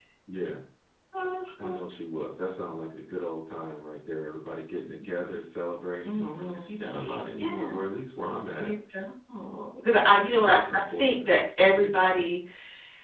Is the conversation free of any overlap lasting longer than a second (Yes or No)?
No